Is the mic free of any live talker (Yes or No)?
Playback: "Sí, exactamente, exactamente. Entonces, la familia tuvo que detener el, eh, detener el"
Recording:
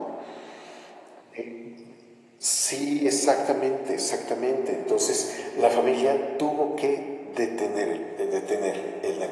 Yes